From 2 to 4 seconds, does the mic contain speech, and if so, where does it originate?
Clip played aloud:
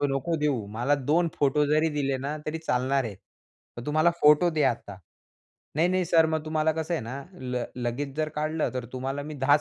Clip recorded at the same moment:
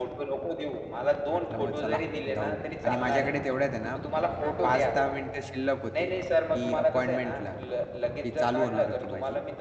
both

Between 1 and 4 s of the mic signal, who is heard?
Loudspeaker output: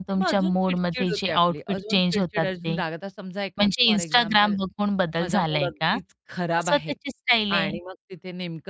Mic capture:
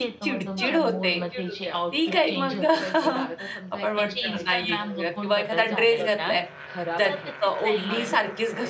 both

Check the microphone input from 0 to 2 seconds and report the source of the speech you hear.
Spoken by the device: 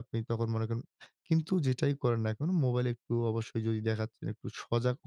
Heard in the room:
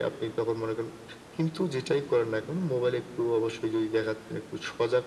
echo only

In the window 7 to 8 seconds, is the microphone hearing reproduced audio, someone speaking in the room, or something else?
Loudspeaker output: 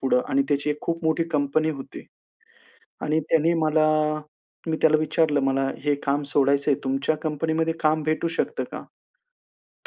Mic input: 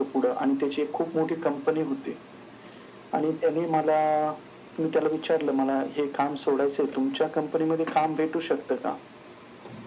echo only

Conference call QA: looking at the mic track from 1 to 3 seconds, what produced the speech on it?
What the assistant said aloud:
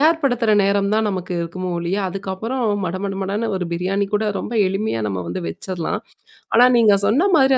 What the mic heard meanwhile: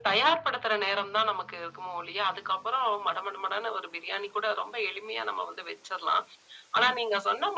echo only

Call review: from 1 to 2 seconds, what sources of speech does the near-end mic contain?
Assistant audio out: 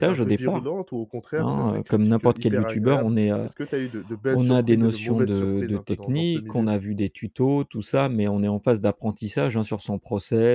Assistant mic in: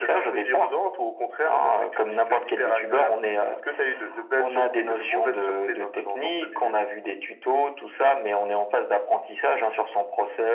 echo only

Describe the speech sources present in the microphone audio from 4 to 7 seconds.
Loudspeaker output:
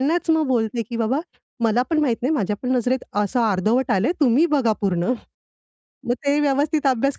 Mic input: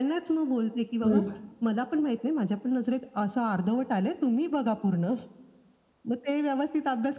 echo only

